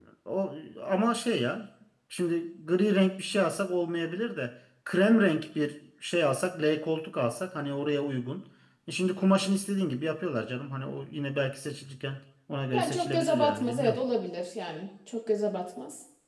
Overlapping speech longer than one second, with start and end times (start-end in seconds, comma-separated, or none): 12.7-14.0